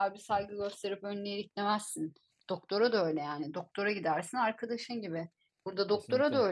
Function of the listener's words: listening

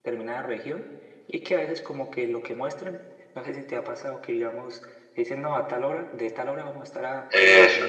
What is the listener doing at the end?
listening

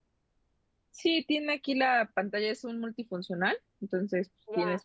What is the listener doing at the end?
taking over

